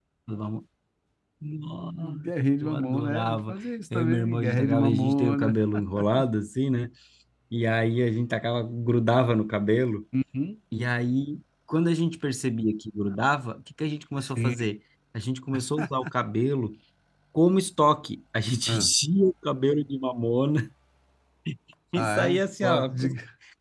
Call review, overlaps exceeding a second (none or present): present